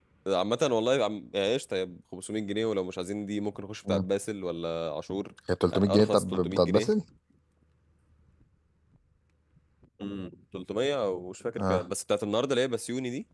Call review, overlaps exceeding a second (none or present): present